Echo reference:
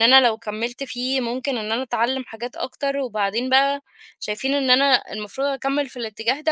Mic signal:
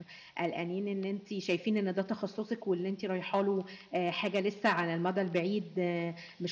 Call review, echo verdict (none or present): none